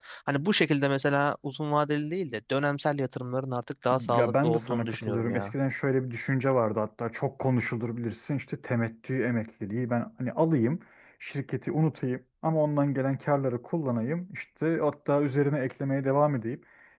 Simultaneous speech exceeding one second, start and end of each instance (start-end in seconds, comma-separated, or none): 3.9-5.5